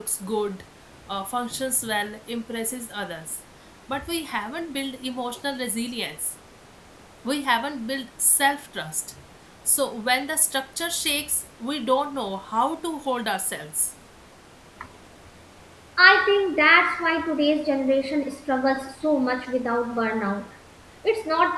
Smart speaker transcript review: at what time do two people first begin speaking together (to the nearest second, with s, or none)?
none